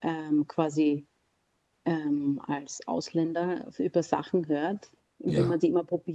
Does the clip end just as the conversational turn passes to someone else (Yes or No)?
No